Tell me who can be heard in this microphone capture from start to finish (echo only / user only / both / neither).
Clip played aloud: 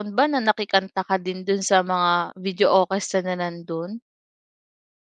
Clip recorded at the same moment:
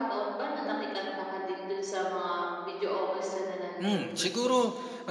both